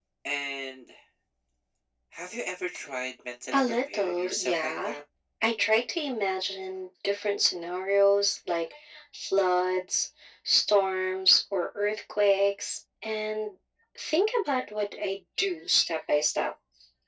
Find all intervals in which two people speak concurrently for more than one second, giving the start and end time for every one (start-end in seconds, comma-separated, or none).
3.5-4.9